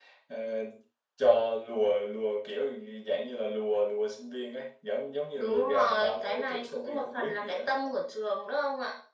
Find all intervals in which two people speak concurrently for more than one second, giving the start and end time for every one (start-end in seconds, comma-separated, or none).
5.4-7.6